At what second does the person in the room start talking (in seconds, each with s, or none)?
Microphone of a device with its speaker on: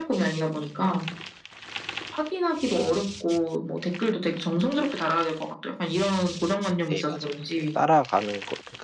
6.9 s